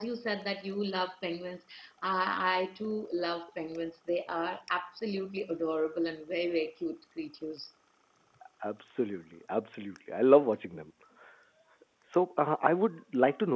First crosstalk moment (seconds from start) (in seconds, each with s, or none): none